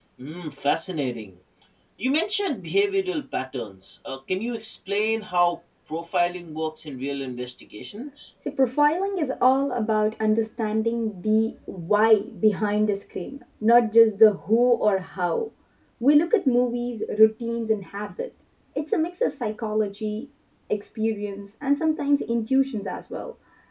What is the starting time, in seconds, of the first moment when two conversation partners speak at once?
none

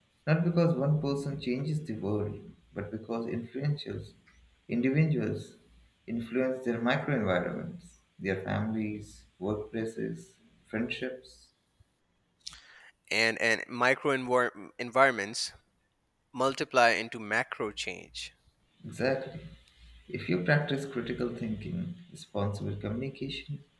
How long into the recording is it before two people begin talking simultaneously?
none

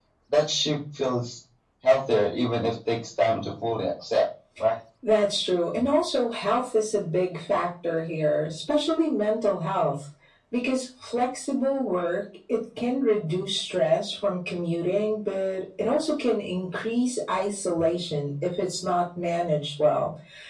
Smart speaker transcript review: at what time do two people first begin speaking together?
none

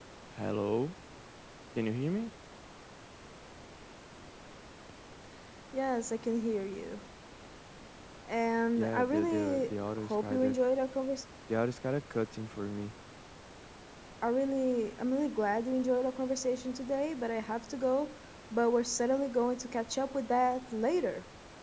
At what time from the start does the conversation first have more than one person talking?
8.8 s

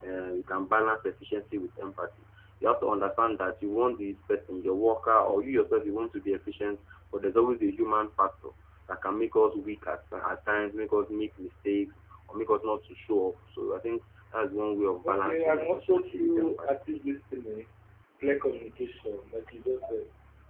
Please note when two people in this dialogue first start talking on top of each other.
15.0 s

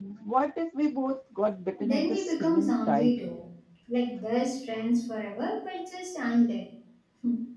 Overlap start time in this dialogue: 1.8 s

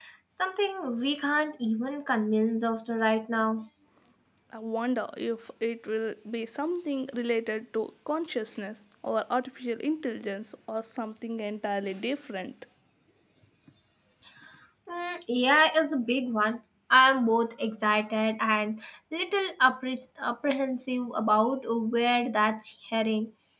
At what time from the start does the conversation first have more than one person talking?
none

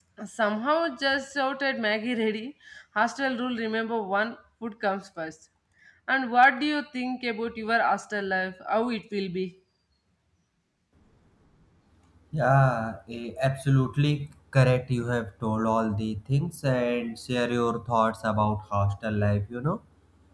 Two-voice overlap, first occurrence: none

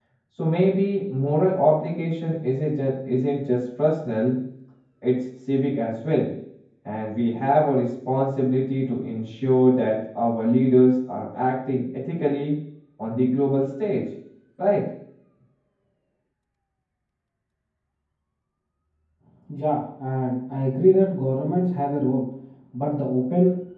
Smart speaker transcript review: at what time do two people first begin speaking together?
none

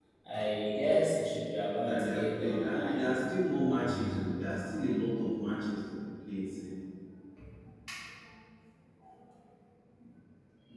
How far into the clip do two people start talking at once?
1.8 s

